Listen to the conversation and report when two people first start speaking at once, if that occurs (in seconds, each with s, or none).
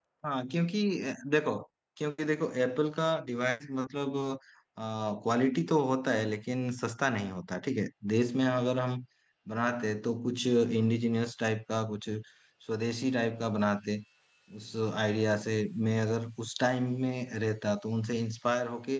none